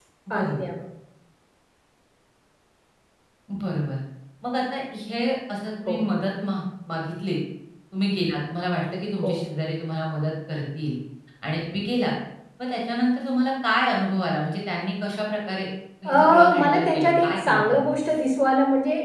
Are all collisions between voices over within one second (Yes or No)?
No